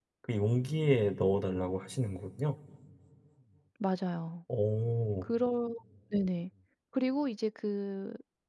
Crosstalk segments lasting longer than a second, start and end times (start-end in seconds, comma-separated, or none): none